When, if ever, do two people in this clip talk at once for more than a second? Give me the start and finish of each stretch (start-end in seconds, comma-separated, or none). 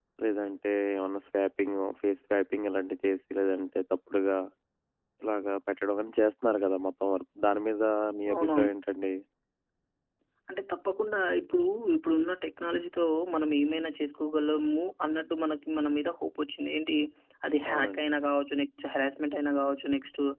none